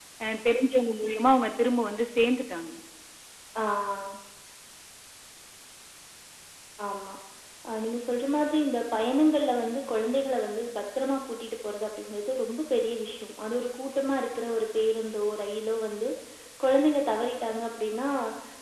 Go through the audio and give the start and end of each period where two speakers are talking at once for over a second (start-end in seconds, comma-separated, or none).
none